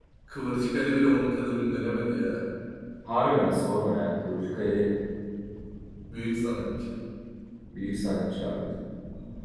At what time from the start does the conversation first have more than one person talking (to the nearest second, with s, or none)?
none